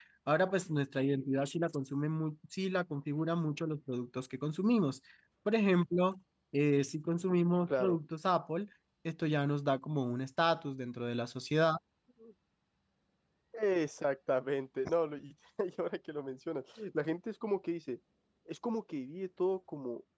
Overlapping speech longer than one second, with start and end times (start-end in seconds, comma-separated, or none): none